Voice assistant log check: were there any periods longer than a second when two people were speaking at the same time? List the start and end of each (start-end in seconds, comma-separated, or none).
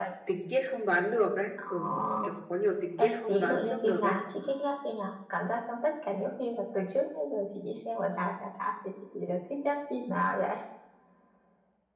3.0-4.2